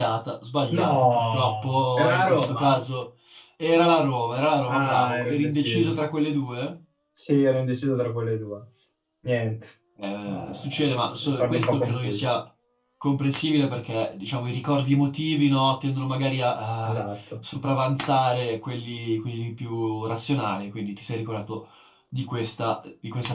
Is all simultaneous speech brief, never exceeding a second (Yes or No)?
No